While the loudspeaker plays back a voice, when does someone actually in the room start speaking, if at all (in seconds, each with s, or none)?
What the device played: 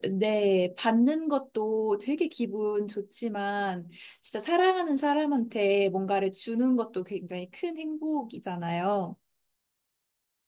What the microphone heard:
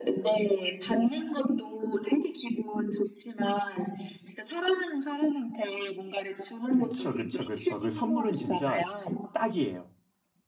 6.7 s